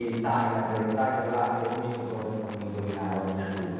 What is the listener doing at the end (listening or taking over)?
taking over